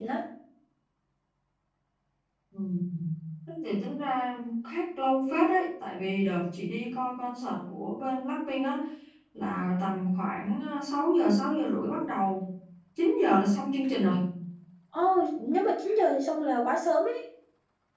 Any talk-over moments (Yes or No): No